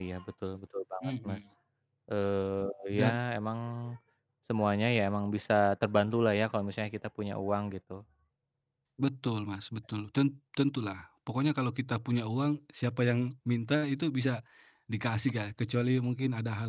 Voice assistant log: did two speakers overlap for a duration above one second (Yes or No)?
No